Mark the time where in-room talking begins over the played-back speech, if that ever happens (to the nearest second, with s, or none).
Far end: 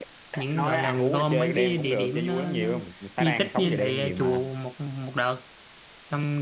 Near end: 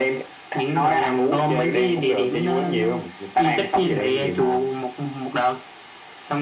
none